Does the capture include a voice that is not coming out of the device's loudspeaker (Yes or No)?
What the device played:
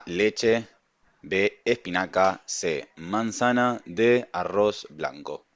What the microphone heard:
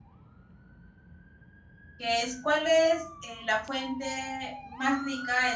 Yes